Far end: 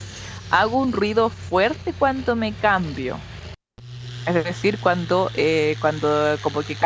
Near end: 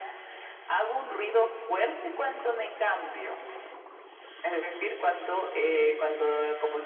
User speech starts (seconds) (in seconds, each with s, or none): none